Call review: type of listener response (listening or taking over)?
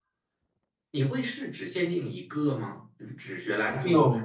taking over